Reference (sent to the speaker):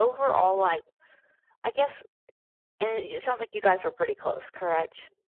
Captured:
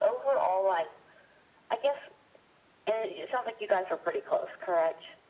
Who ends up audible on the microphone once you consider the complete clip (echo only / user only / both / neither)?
echo only